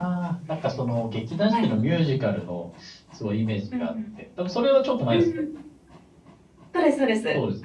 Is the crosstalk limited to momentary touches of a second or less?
Yes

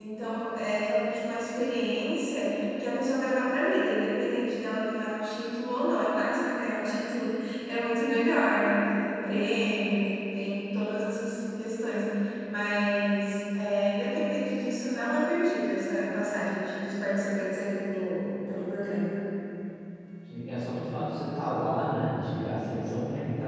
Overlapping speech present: No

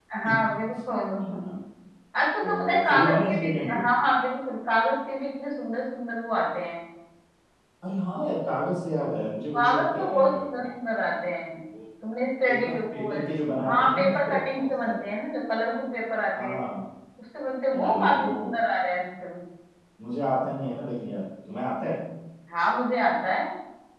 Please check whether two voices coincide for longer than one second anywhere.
Yes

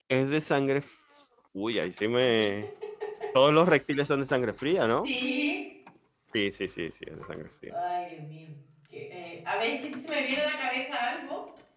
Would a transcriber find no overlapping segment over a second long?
Yes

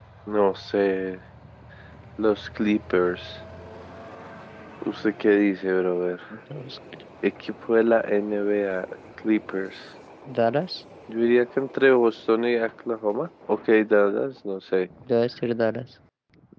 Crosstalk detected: No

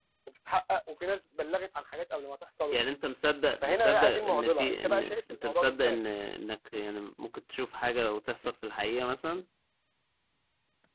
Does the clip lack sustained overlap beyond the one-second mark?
No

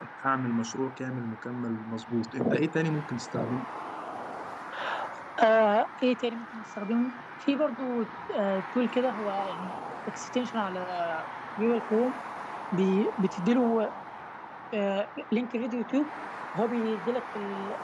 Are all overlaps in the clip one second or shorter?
Yes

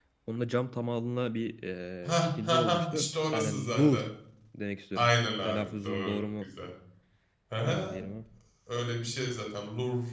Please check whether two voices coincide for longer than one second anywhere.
Yes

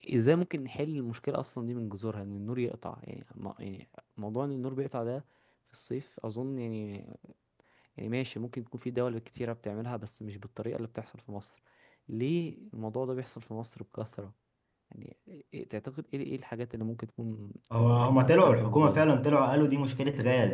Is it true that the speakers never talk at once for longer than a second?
No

